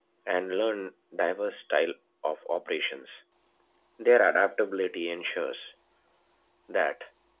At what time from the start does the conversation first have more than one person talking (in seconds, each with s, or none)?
none